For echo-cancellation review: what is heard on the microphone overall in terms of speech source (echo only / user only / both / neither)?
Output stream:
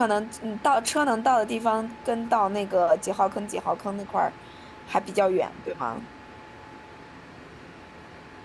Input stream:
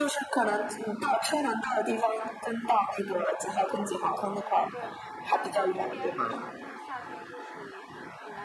both